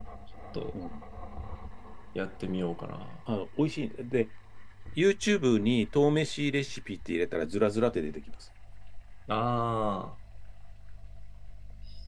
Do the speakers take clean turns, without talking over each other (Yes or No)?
Yes